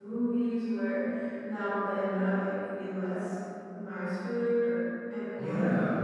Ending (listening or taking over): taking over